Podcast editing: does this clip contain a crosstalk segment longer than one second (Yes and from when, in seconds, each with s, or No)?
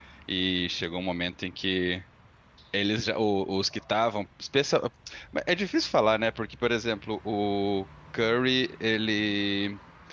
No